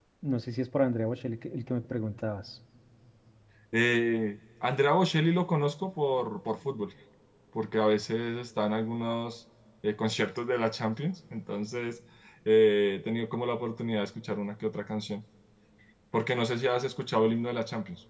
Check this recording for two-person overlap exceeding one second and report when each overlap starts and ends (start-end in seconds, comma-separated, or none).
none